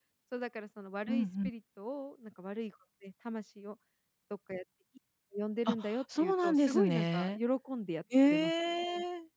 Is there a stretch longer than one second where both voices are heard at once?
Yes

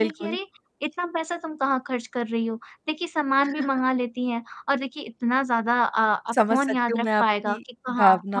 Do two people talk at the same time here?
Yes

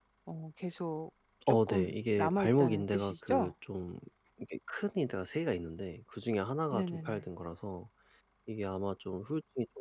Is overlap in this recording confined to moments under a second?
No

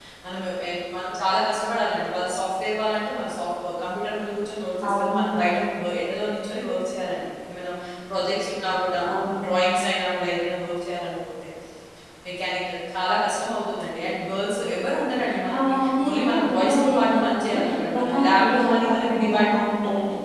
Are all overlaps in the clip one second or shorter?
No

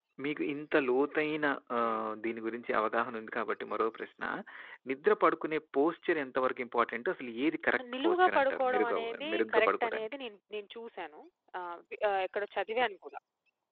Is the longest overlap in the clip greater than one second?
Yes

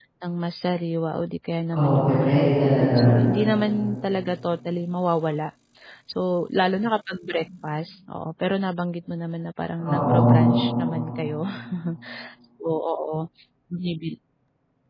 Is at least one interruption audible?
Yes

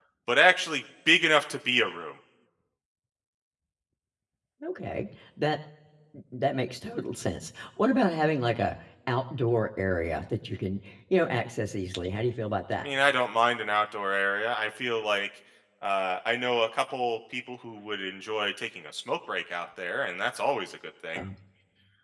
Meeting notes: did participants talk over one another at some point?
No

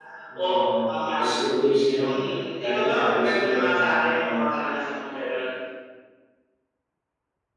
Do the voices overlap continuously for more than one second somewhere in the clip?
Yes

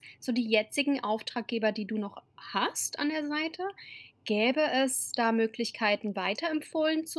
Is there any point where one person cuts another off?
No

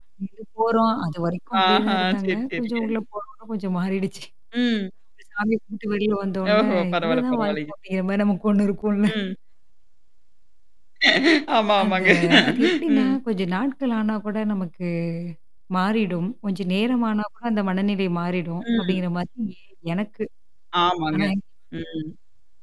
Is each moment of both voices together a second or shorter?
No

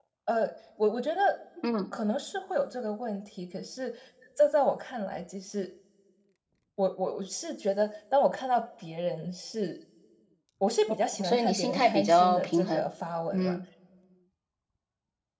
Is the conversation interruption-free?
No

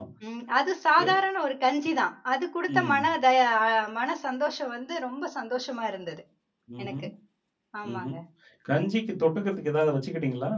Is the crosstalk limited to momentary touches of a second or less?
Yes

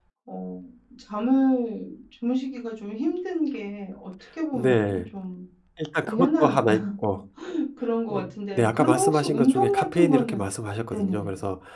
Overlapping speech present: Yes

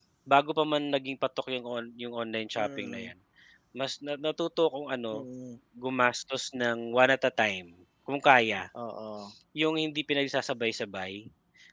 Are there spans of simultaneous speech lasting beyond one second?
No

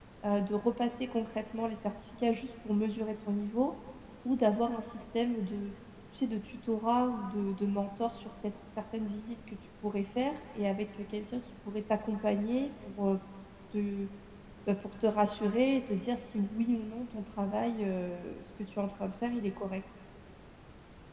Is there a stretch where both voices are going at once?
No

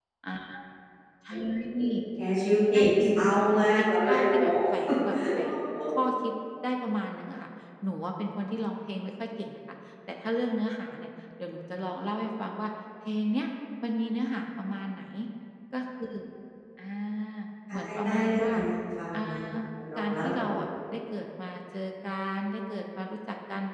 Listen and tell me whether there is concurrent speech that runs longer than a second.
Yes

